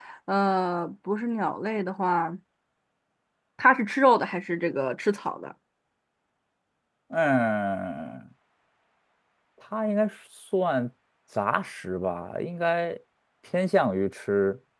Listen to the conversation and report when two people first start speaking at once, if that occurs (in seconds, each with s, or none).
none